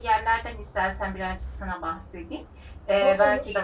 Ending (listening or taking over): listening